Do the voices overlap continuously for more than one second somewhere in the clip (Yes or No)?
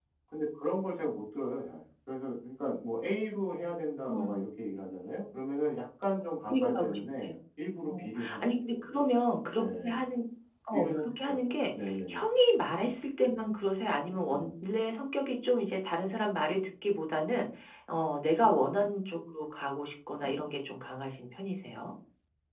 Yes